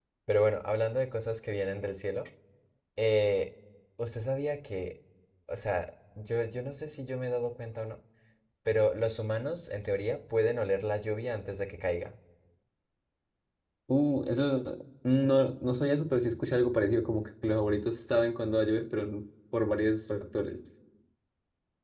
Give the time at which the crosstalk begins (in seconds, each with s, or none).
none